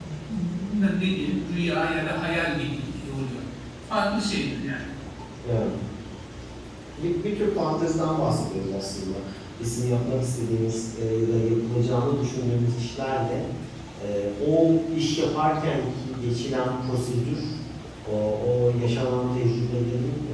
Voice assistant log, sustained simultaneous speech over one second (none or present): none